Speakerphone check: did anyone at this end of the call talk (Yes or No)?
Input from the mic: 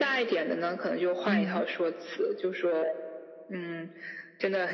Yes